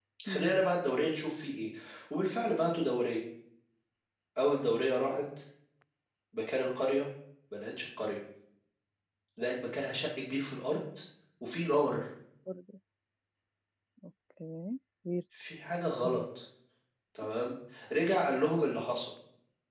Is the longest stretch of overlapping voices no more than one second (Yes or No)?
Yes